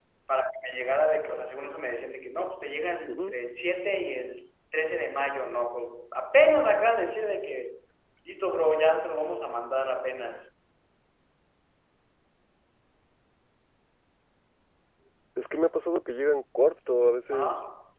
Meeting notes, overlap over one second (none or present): none